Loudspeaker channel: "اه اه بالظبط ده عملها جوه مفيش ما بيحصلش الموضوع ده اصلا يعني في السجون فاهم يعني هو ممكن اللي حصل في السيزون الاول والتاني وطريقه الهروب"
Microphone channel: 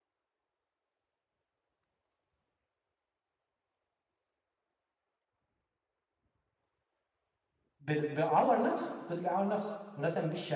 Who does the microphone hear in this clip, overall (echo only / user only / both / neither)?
user only